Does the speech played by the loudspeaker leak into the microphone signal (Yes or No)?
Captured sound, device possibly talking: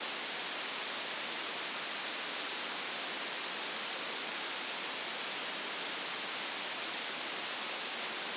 No